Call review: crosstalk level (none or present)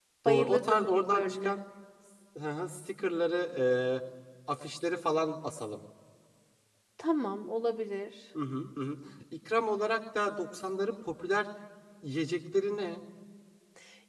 present